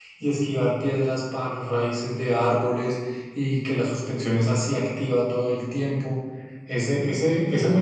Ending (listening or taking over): listening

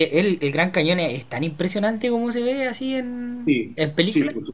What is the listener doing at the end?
taking over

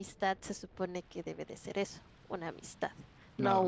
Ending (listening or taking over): listening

